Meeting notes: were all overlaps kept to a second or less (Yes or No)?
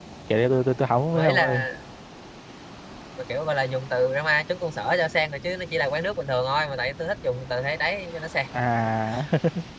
Yes